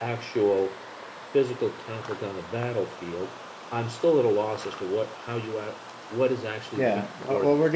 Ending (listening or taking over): taking over